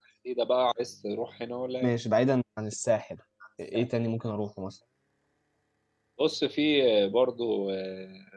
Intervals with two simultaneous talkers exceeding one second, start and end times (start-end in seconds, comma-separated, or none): none